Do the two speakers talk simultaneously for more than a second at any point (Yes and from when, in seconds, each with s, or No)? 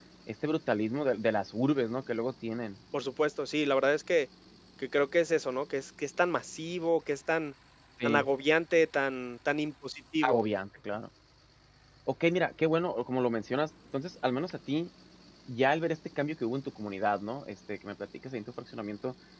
No